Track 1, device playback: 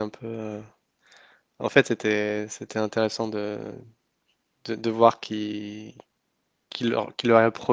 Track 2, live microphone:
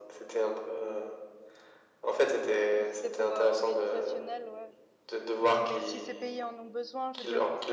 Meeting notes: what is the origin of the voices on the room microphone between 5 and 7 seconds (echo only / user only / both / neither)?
both